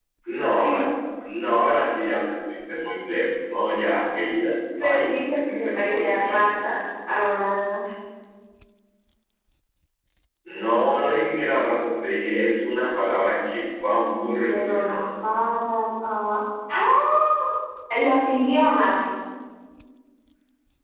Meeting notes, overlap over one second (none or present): present